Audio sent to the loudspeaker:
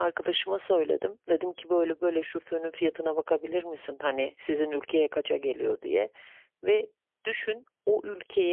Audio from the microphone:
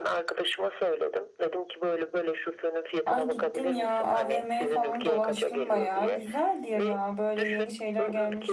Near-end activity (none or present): present